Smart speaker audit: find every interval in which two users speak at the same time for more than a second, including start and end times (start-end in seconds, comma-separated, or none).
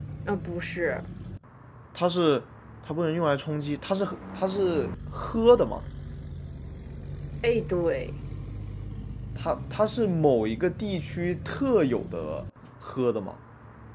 none